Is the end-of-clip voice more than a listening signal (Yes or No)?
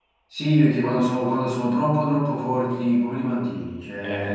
No